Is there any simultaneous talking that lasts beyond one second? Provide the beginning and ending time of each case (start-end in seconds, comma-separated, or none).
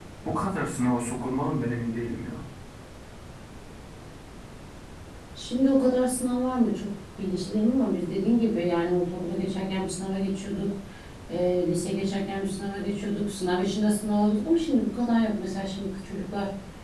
none